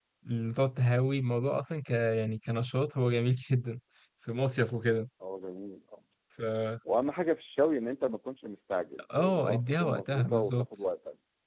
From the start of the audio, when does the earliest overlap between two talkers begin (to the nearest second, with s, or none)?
9 s